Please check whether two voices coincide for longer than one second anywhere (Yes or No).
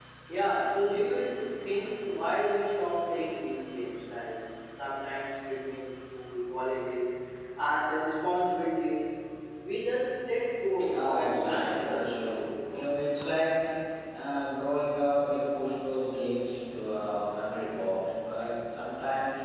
Yes